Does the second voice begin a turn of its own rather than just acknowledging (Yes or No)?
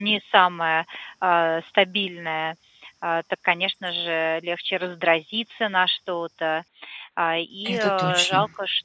No